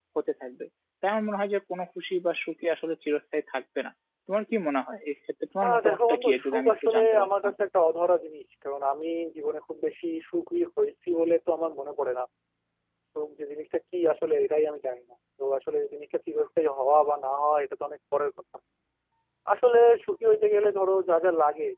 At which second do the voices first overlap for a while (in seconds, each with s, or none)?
5.6 s